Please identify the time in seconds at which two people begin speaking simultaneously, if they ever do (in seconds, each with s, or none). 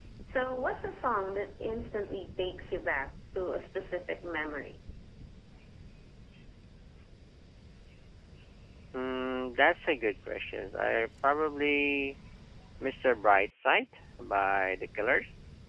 none